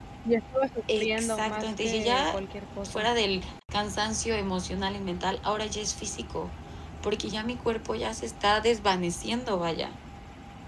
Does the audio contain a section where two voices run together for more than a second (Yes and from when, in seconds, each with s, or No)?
Yes, from 1.0 s